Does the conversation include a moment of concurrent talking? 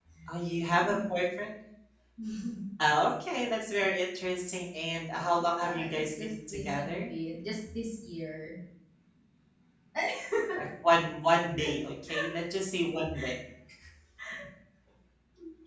Yes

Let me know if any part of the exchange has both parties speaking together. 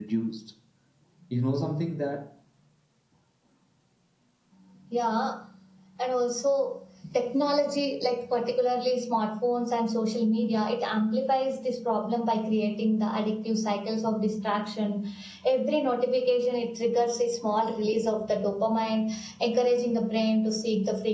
No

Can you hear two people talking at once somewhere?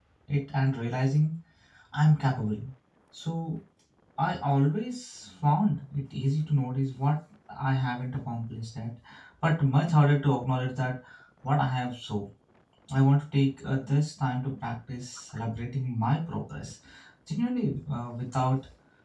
No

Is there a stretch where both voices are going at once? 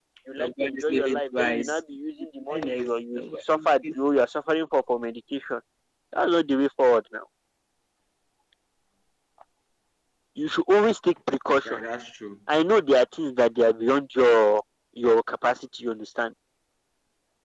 Yes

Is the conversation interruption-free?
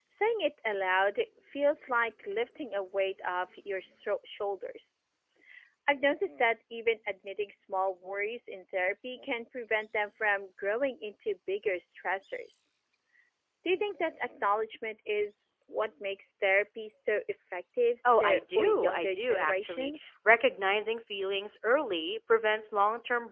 No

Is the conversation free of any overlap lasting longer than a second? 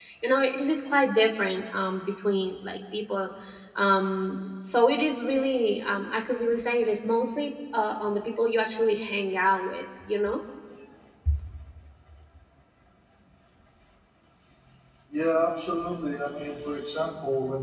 Yes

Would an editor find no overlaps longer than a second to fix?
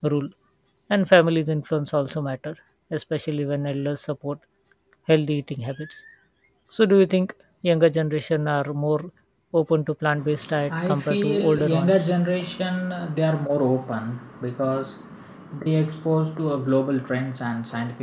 No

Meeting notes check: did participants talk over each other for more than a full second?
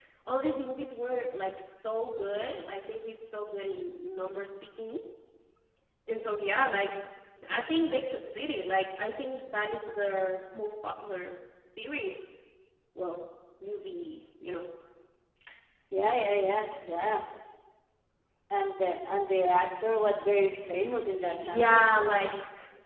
No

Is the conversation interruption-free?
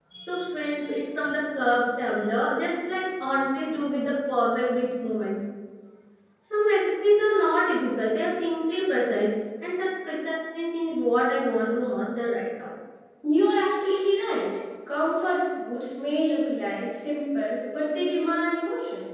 Yes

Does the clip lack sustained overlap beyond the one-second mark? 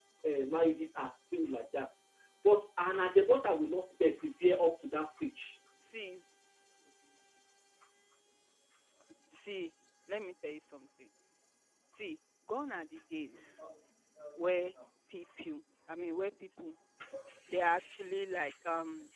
Yes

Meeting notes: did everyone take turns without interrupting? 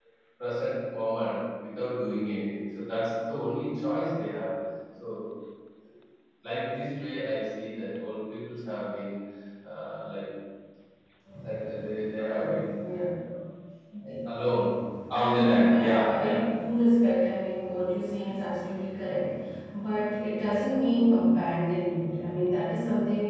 No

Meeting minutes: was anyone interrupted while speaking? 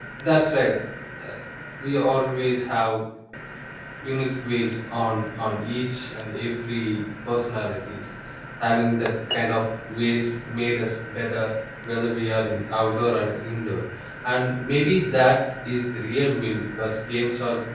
No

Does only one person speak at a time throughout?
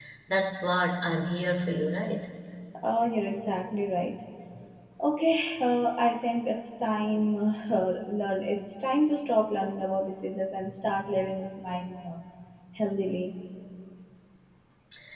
Yes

